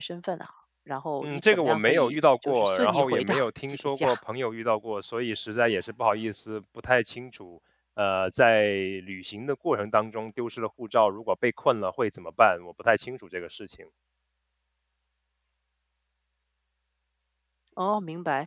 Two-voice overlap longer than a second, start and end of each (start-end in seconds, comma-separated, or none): 1.2-4.1